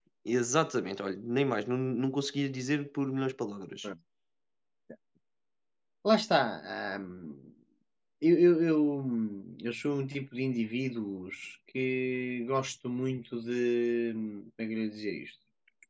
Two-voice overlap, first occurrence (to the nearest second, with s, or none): none